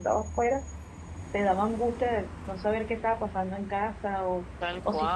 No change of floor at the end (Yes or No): No